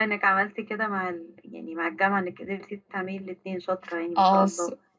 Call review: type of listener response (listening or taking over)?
taking over